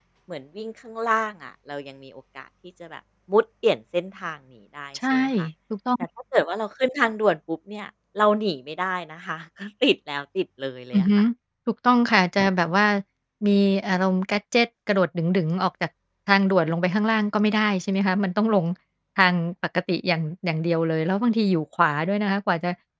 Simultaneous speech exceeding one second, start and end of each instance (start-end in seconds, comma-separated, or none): none